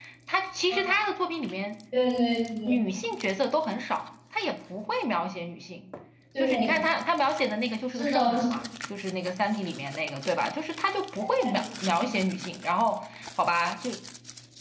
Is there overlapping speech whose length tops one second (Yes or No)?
No